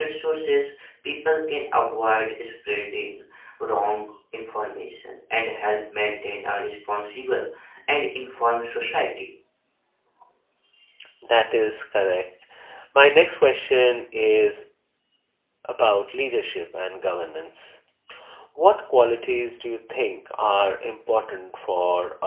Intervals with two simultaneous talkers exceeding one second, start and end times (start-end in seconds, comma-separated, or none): none